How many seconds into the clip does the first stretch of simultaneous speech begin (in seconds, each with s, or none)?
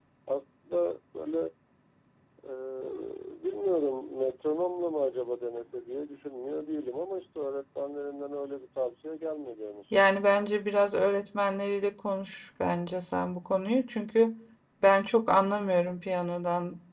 none